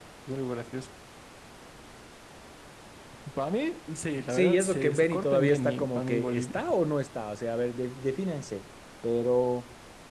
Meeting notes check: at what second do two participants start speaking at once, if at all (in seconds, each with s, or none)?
4.2 s